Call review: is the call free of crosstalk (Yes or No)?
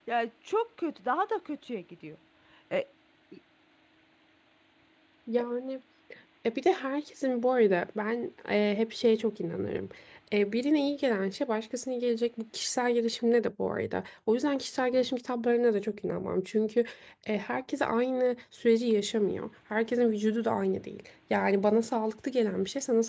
Yes